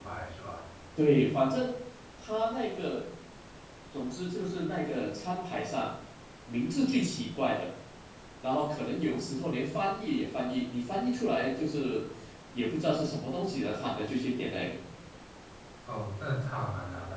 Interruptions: none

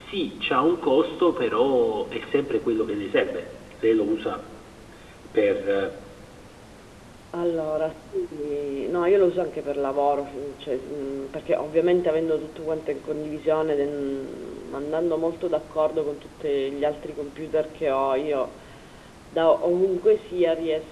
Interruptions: none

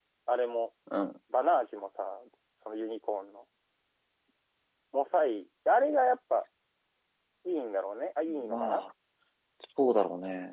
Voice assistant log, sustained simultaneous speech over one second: none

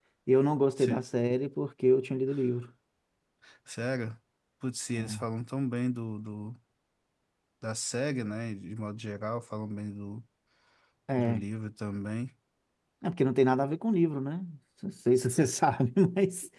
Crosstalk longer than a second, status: none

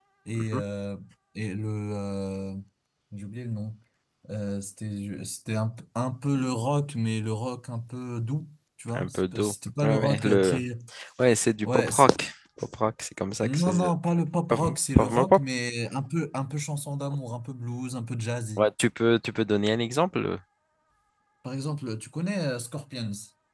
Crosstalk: present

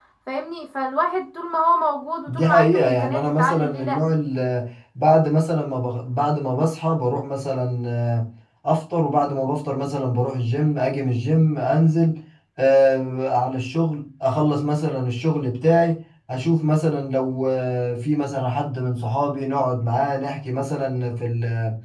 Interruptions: present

